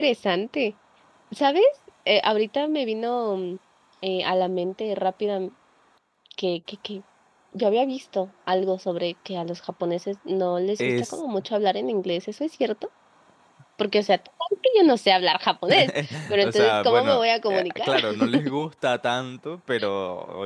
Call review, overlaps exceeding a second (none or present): present